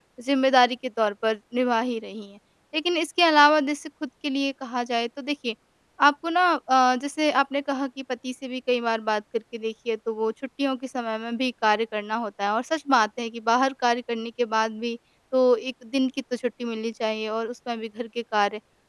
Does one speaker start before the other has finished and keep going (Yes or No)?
No